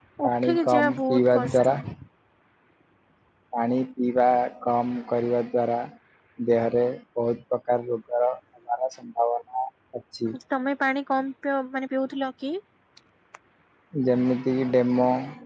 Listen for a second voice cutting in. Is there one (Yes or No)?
Yes